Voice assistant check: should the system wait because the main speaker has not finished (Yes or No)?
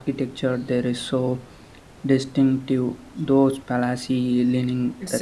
No